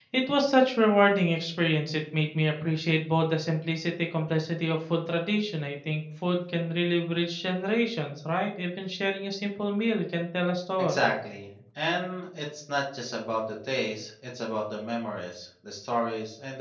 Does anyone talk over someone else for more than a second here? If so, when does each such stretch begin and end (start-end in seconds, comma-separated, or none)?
none